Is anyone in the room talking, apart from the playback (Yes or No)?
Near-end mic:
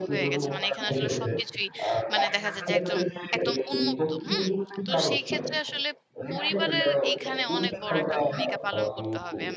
Yes